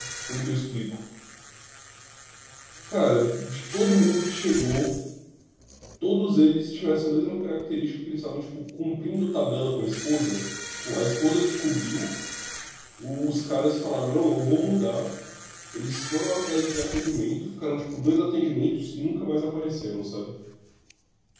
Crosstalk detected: No

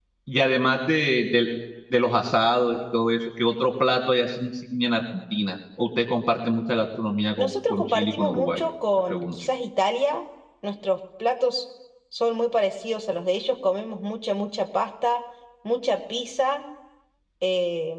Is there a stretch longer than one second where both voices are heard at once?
Yes, from 7.4 s

